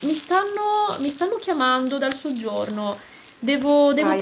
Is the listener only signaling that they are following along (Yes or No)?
No